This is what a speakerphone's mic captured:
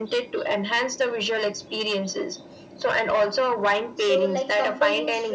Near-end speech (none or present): present